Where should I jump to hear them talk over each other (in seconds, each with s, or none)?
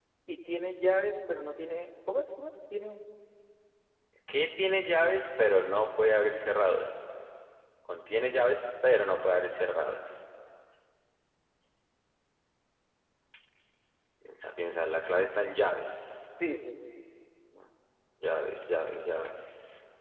none